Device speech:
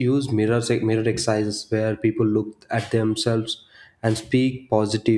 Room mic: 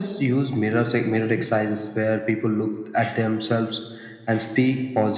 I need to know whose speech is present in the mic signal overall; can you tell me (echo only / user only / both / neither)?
echo only